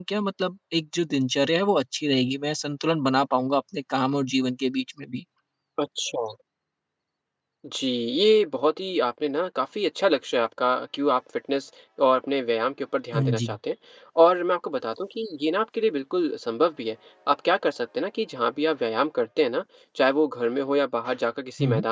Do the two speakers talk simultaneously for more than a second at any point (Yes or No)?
No